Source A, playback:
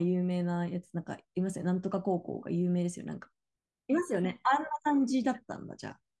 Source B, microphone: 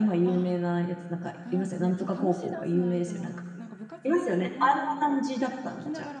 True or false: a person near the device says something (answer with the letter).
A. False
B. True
B